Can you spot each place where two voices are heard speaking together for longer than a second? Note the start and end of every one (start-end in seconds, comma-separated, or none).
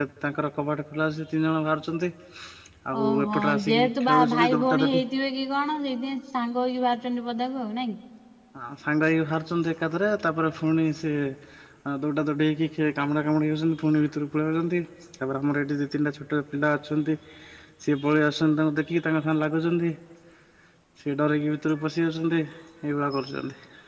3.0-5.0